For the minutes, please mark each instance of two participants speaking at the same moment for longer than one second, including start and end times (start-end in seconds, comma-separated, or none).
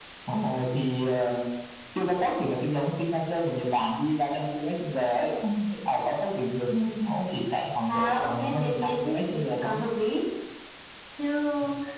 7.9-9.8